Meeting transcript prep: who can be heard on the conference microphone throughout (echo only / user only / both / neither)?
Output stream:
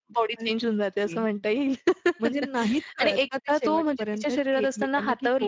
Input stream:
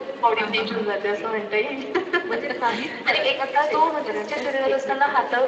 both